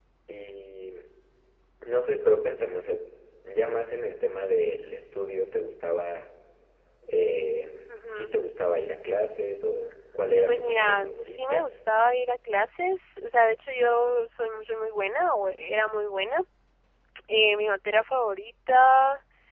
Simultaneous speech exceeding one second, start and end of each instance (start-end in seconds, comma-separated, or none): 10.5-11.7